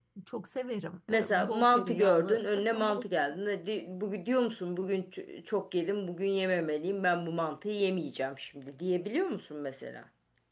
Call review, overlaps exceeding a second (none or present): present